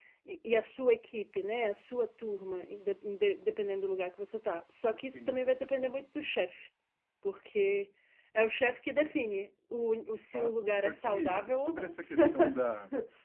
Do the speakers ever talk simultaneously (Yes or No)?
Yes